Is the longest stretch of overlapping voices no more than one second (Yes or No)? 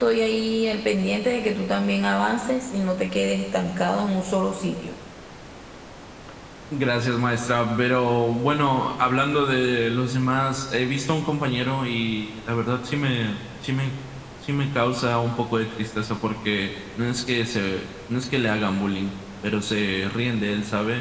Yes